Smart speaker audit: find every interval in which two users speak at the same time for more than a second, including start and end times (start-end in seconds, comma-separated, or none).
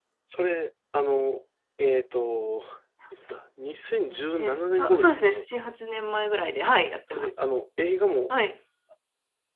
4.1-5.4